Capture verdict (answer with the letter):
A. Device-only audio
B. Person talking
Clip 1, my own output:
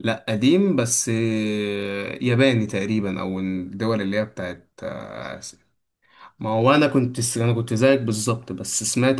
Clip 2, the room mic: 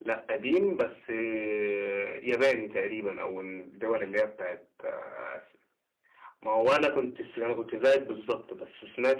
A